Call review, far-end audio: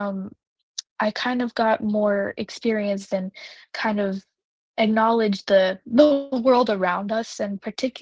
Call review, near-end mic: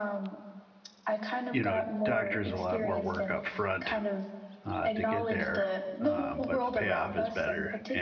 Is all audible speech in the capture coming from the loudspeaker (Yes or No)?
No